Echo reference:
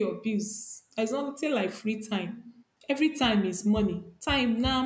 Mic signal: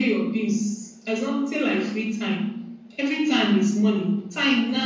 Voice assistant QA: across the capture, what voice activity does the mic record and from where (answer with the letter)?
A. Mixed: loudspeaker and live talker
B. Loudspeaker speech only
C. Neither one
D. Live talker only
B